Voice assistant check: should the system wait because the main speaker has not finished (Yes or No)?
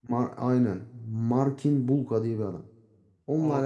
Yes